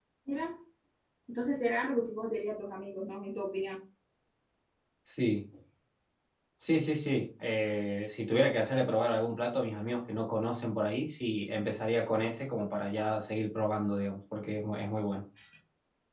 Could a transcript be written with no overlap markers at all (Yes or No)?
Yes